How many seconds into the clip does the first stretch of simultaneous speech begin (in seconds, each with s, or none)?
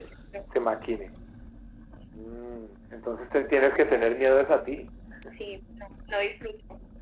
none